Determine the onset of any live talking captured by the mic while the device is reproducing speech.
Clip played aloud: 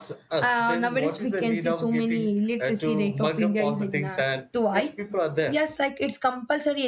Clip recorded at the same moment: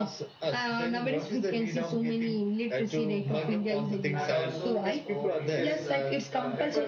3.3 s

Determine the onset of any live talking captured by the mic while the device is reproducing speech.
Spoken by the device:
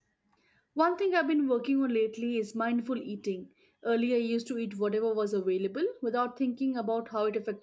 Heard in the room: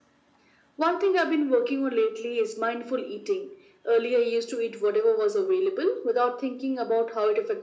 none

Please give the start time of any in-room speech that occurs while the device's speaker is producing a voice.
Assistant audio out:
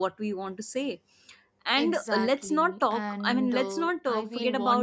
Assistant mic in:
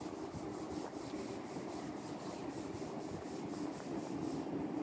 none

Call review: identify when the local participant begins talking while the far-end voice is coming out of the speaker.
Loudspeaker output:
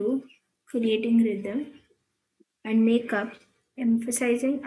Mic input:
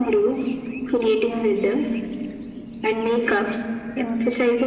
none

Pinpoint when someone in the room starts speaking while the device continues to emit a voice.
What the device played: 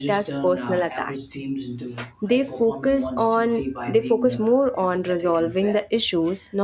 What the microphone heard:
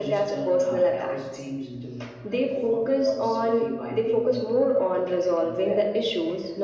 none

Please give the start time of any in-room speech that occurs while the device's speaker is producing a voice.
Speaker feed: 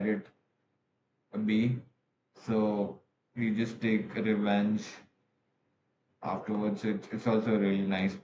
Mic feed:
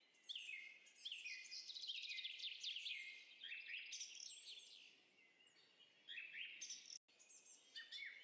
none

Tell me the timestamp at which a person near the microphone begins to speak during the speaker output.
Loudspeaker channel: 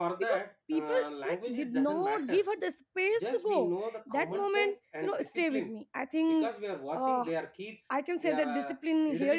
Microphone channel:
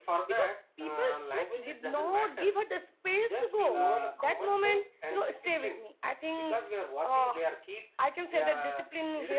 3.7 s

